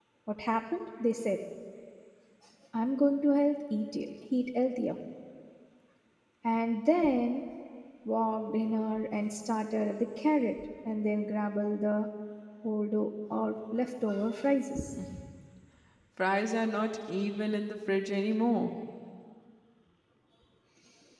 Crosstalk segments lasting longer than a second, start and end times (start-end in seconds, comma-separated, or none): none